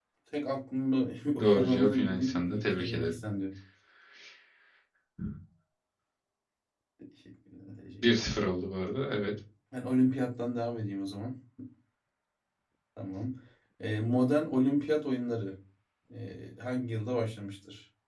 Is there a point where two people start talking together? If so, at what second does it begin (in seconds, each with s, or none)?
1.4 s